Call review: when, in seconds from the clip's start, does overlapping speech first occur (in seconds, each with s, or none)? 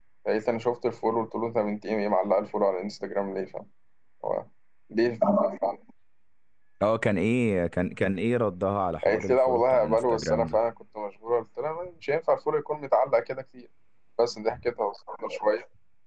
9.0 s